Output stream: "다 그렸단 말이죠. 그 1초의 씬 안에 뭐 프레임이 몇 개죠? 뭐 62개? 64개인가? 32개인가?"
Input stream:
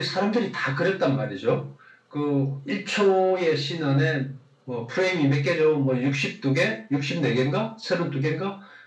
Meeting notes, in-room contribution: none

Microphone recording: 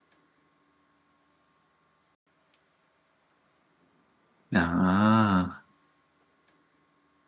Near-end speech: present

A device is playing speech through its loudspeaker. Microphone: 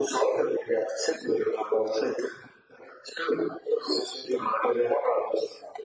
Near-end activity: none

